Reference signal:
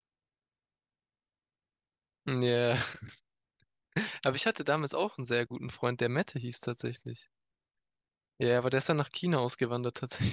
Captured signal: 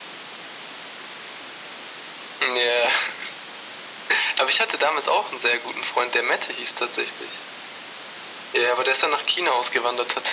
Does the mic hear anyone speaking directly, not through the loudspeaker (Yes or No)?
No